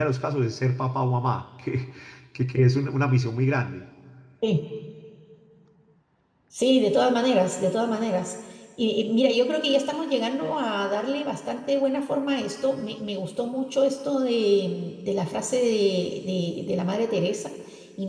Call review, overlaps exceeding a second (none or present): none